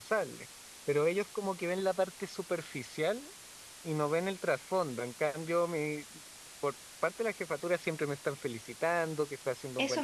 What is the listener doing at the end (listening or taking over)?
taking over